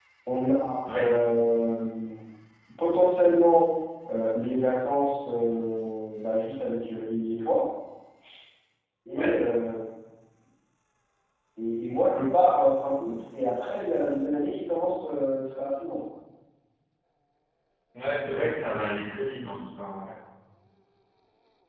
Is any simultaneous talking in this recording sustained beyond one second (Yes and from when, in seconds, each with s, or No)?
No